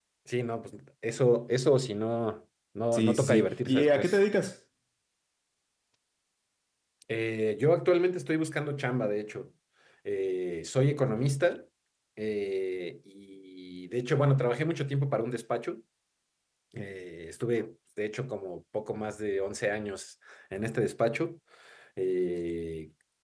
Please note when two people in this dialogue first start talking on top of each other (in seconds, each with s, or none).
2.9 s